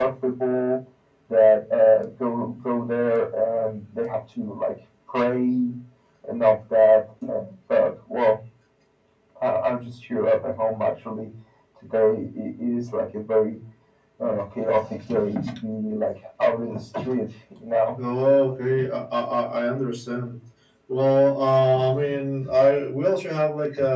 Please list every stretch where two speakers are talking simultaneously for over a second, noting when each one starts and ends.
none

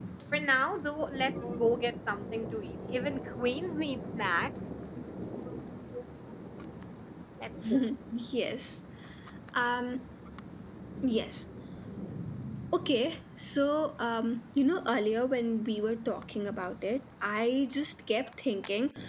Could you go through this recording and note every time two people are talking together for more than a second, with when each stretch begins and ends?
none

